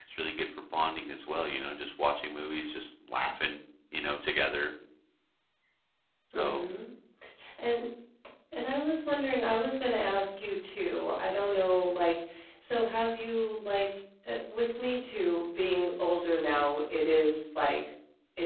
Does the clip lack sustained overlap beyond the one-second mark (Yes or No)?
Yes